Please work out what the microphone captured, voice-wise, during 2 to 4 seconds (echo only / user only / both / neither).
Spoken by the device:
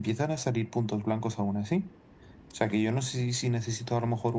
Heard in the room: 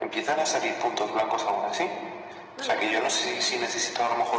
both